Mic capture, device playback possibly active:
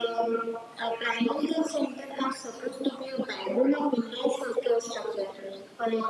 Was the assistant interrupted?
No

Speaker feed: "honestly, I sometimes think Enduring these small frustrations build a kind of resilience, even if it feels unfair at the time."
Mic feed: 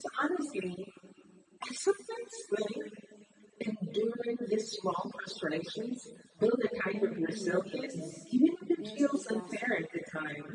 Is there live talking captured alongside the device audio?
Yes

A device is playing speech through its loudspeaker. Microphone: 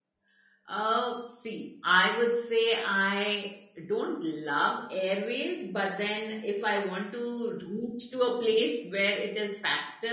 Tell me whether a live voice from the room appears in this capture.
Yes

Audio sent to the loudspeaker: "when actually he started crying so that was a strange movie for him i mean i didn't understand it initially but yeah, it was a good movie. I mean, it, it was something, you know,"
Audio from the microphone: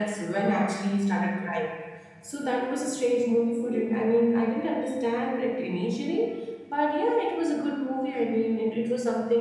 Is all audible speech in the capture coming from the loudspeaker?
Yes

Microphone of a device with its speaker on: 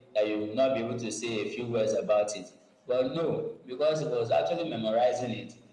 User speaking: No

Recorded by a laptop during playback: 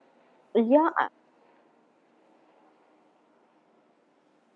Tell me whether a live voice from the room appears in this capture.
Yes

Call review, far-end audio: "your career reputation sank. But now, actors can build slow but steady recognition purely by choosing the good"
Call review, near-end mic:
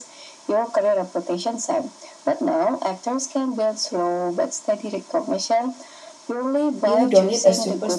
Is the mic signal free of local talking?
No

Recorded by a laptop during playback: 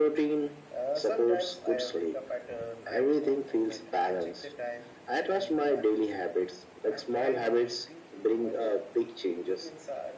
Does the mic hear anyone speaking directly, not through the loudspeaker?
Yes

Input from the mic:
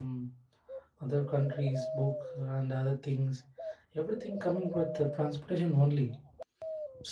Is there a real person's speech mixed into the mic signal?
Yes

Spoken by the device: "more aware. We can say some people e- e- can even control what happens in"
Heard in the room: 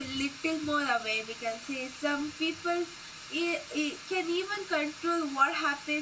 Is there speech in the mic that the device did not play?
No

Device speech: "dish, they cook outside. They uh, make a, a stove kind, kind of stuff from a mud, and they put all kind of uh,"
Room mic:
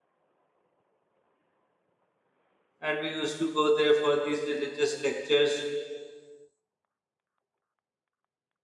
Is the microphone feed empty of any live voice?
No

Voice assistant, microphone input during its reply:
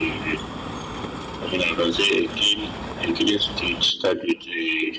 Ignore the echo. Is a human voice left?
No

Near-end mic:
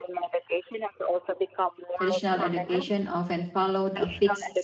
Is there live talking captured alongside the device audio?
Yes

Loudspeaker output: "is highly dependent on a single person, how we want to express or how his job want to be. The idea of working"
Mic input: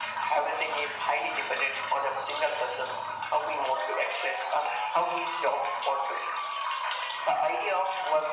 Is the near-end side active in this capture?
No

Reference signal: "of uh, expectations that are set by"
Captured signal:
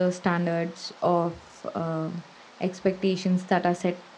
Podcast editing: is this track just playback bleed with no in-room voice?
Yes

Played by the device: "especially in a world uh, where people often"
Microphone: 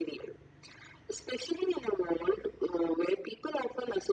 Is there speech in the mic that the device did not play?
No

